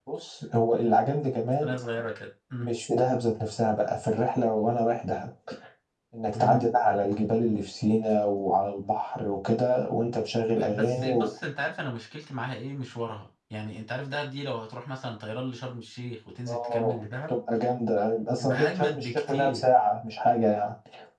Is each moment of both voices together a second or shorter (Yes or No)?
No